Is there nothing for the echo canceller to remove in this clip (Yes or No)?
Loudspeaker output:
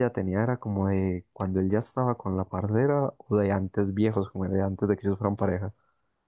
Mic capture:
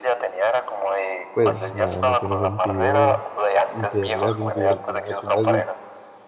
No